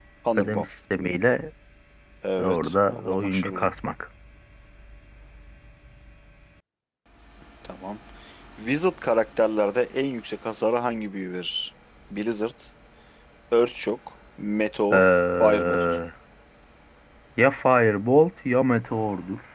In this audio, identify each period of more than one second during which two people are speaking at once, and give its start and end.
2.4-3.7

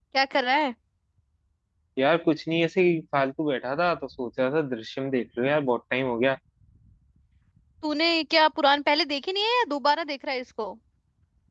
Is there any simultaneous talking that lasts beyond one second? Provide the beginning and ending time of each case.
none

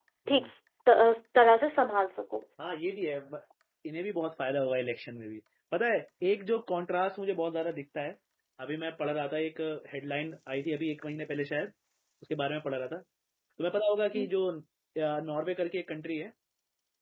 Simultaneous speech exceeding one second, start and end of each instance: none

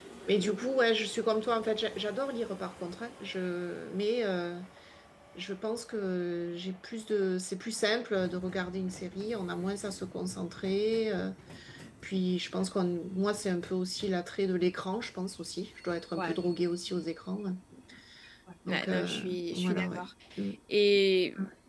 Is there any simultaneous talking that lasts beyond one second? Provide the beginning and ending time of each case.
18.7-20.1

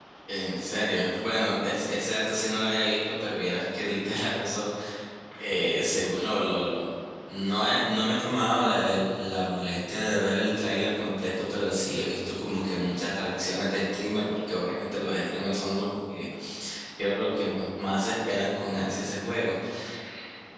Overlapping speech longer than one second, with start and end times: none

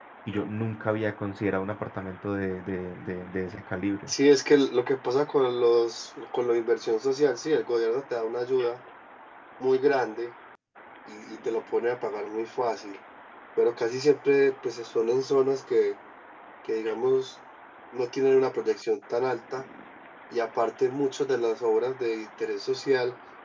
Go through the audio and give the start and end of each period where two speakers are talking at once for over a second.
none

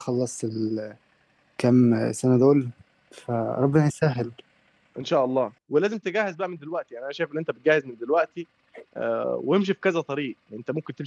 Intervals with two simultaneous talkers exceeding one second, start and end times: none

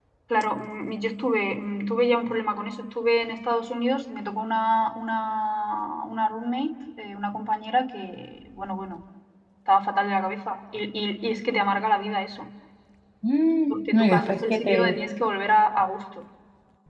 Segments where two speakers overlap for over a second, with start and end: 13.7-15.0

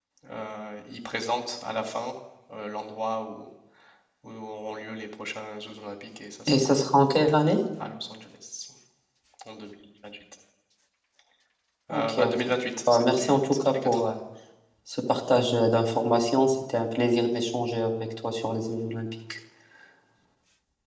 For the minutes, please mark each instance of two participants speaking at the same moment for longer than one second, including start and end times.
12.9-14.1

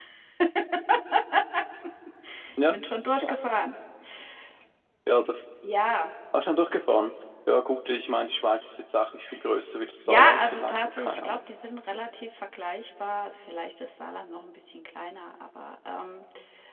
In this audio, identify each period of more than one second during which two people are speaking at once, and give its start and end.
10.0-11.4

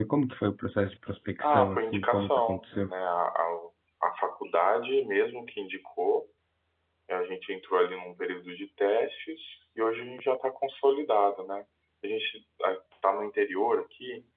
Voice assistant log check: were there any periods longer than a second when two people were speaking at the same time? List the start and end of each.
1.4-2.9

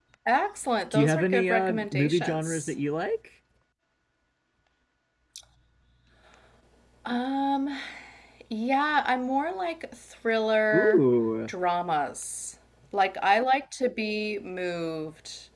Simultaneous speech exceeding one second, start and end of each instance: 0.9-2.7

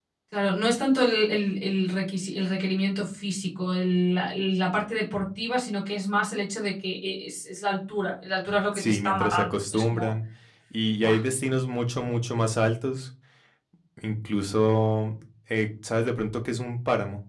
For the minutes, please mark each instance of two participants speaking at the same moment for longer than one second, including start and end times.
8.7-10.1

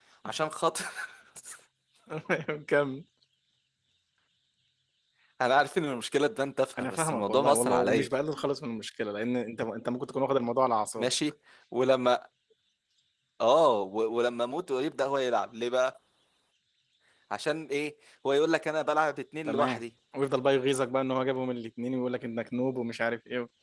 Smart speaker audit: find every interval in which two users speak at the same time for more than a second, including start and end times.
6.8-8.1

